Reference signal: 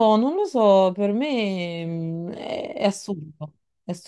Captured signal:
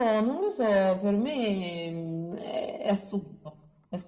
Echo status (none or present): present